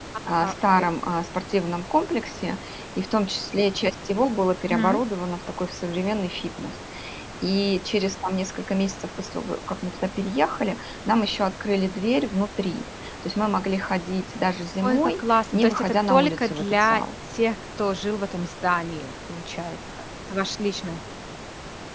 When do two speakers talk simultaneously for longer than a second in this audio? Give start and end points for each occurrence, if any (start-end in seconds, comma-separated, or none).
14.8-17.0